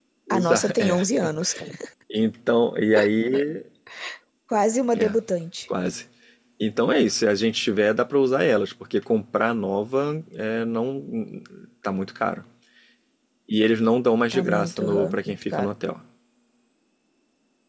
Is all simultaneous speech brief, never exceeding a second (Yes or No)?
No